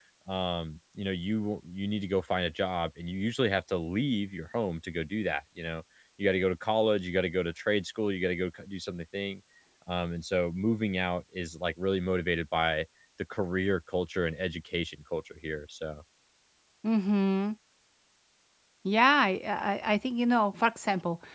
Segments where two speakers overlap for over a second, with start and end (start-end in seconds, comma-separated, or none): none